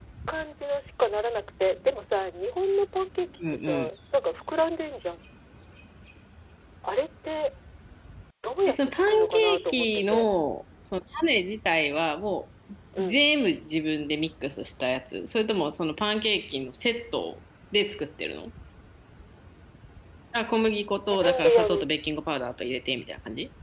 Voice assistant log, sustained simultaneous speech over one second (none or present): present